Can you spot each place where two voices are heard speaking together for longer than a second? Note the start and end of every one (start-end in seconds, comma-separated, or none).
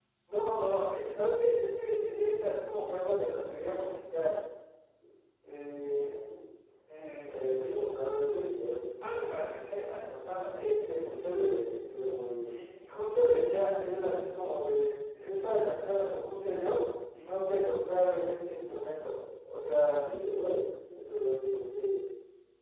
7.1-8.4